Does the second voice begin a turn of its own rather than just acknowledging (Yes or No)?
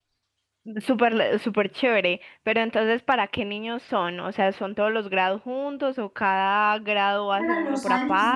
Yes